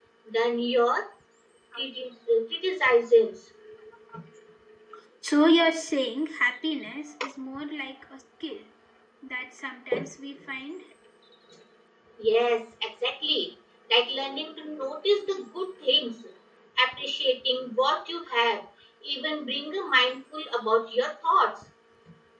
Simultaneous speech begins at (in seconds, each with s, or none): none